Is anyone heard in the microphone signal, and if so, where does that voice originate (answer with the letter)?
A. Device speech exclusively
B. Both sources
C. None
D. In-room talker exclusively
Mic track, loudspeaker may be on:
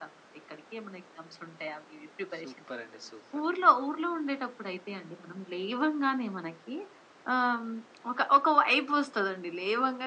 B